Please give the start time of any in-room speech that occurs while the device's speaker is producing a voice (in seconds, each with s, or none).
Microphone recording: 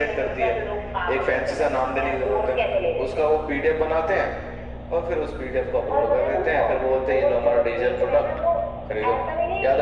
none